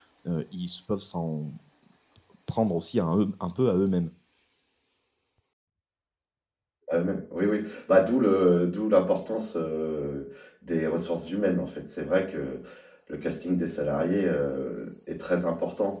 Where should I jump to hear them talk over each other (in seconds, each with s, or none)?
none